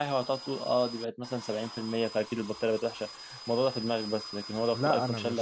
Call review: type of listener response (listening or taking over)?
taking over